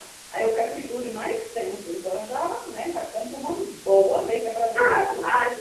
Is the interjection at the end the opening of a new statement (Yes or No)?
Yes